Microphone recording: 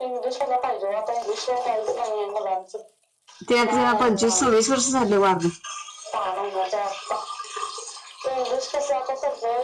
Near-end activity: present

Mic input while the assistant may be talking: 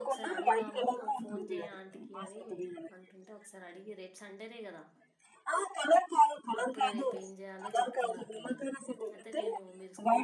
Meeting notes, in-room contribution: present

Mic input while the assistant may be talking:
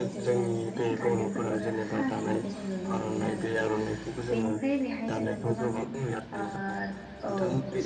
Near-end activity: present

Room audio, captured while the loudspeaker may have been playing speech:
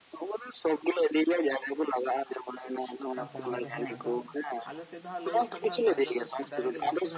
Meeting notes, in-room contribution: present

